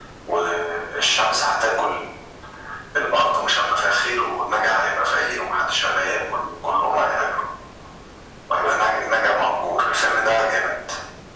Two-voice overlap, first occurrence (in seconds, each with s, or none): none